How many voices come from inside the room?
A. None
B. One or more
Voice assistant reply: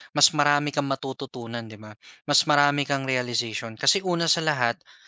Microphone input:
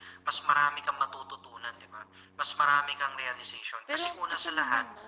B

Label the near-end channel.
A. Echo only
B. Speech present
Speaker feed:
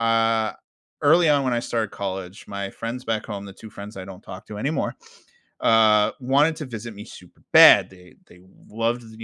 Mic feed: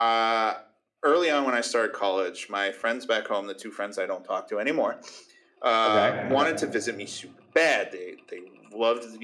B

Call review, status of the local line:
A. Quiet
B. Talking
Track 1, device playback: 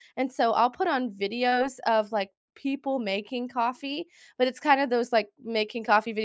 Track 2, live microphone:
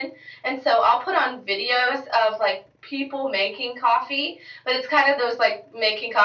A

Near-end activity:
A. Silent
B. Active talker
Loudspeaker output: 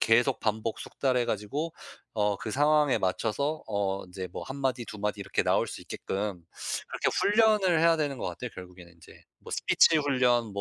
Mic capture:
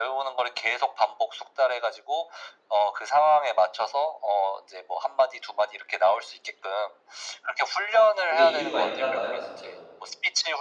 B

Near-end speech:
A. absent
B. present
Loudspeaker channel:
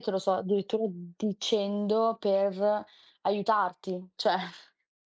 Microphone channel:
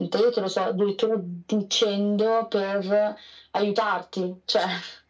A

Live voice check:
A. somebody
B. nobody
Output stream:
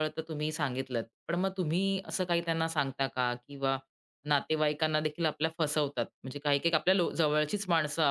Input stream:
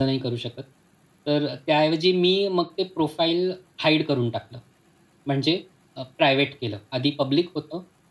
A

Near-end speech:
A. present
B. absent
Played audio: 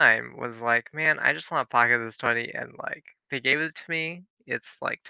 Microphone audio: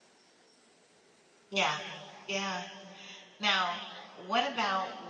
A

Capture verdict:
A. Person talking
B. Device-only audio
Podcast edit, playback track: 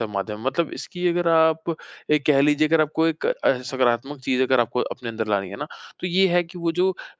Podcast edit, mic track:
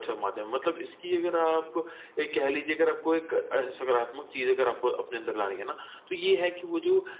B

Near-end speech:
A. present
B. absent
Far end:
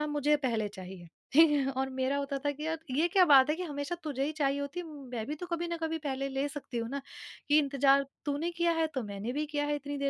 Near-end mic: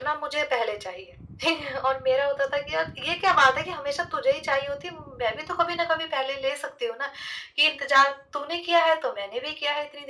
B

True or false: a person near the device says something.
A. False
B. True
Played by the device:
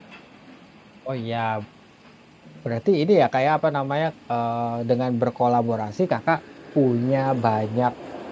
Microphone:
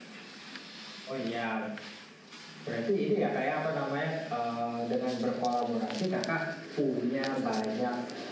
A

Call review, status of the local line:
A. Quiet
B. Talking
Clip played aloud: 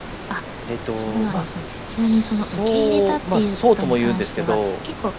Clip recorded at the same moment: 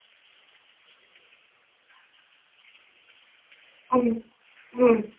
B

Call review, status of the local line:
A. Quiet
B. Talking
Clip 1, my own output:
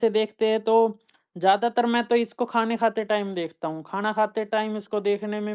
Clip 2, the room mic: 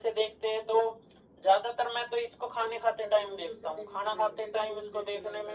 B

